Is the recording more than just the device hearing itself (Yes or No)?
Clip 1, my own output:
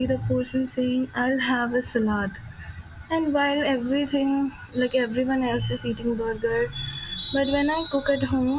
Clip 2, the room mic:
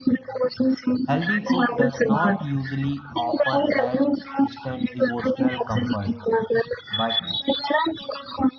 Yes